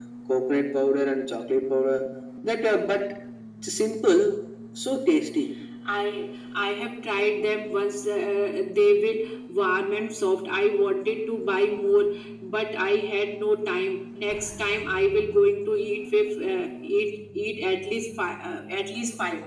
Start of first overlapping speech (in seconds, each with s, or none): none